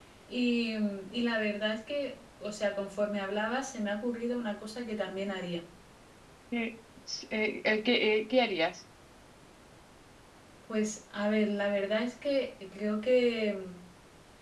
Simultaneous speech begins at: none

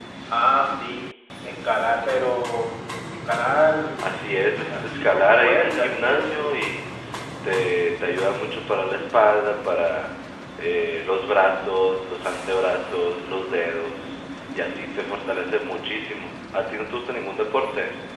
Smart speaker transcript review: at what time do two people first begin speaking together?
5 s

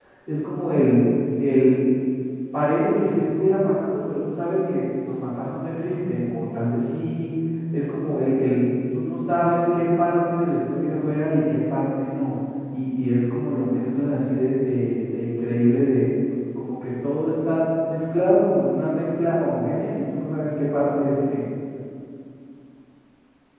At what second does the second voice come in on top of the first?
none

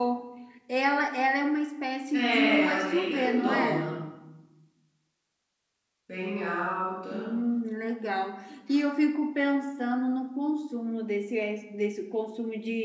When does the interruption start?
2 s

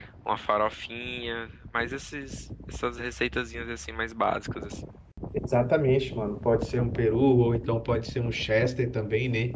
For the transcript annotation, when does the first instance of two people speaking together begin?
none

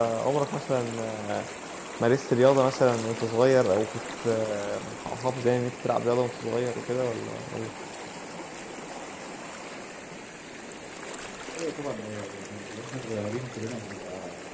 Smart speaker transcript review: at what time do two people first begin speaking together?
none

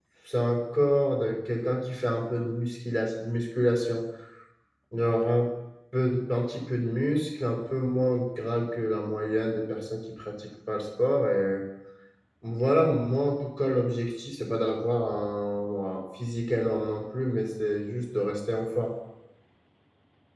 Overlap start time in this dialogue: none

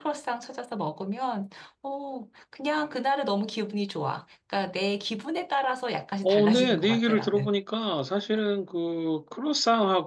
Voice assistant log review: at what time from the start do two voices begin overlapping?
6 s

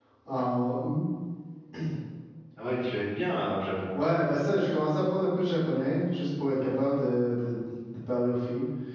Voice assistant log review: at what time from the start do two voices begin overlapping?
none

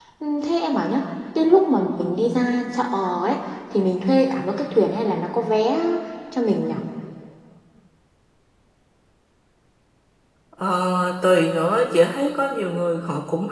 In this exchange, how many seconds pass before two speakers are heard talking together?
none

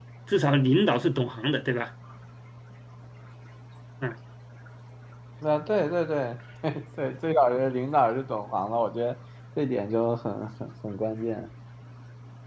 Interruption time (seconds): none

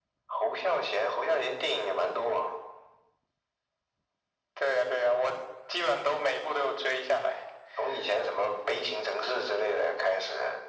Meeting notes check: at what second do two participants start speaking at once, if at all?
none

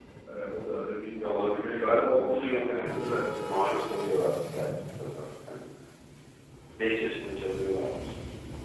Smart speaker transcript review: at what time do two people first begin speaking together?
1 s

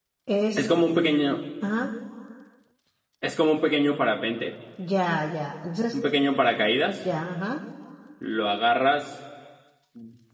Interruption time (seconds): none

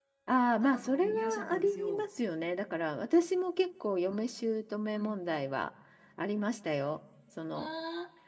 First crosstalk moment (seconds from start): 1 s

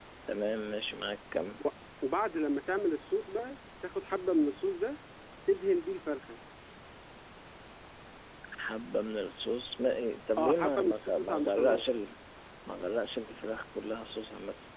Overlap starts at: 10 s

